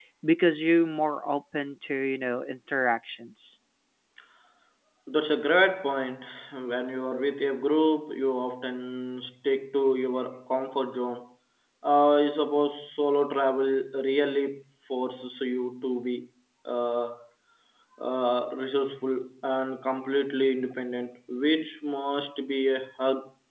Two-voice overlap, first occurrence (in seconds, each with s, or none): none